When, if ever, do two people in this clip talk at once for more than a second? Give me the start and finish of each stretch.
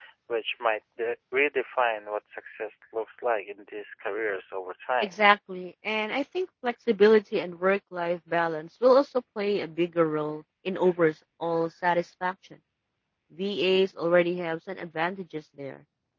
none

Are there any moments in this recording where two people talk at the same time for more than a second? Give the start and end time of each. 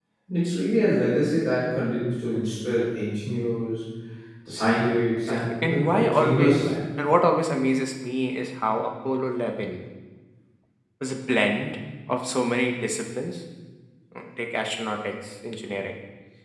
5.2-6.7

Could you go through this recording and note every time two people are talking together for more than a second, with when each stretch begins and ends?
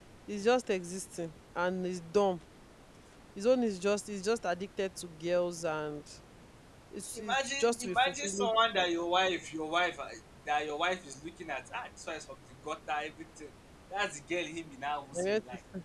7.2-8.5

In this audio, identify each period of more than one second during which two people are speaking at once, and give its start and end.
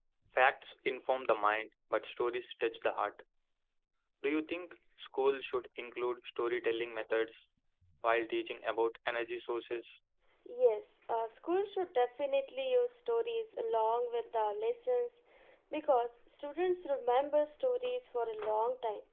none

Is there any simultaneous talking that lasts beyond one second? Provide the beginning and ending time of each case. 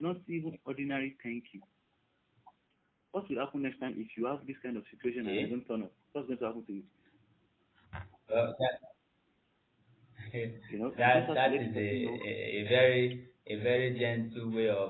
10.9-12.2

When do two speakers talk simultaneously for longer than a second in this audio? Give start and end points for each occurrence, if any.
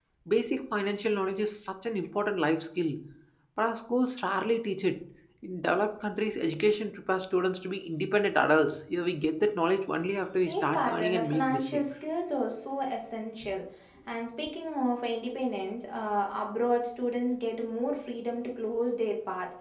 10.5-11.8

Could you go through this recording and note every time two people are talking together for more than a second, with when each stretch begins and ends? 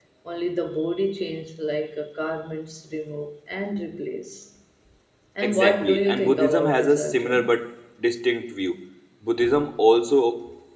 5.4-7.6

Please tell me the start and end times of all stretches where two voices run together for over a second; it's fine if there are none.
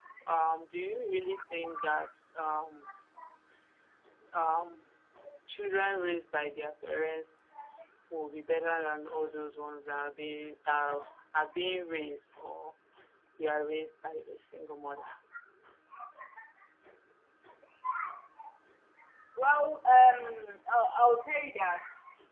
none

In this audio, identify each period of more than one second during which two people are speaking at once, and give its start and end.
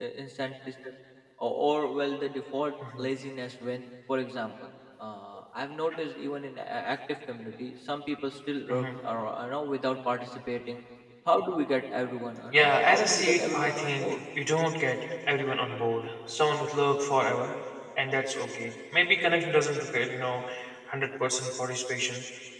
12.5-14.0

